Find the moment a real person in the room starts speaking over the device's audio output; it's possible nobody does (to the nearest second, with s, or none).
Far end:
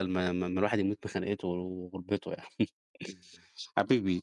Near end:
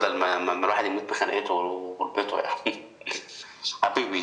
none